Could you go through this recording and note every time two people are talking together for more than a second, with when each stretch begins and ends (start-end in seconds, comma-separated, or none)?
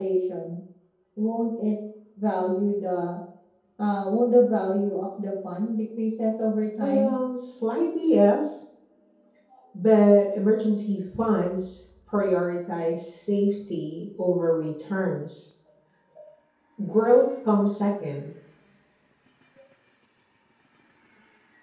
none